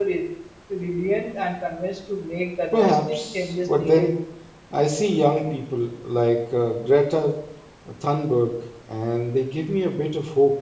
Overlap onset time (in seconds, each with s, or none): 2.7 s